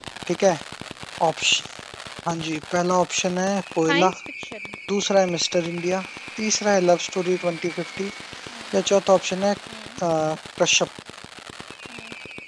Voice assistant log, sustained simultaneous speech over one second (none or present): none